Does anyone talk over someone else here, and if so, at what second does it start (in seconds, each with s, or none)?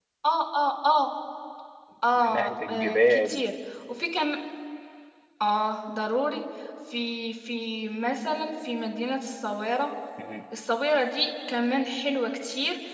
2.1 s